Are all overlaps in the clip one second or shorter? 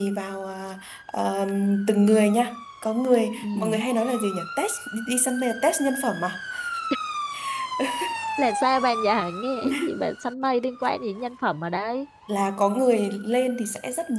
Yes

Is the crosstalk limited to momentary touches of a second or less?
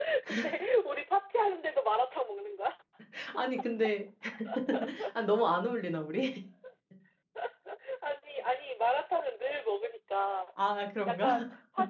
Yes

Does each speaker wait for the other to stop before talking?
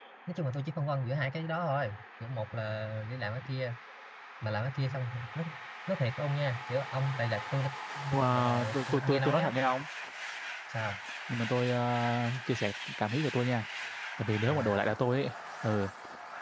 No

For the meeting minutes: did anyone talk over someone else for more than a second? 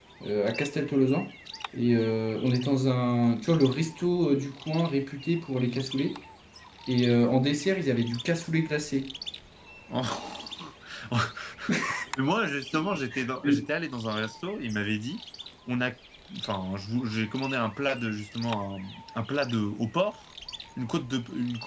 No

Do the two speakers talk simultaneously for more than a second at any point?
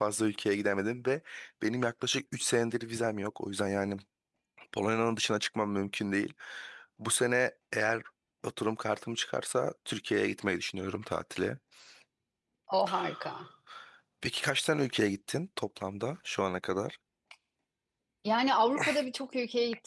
No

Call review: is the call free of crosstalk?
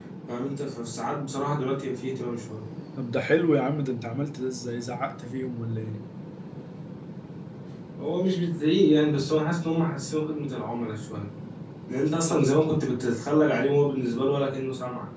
Yes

